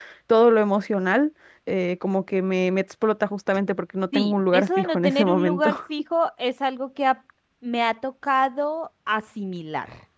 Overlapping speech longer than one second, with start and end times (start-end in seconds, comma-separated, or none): 4.1-5.7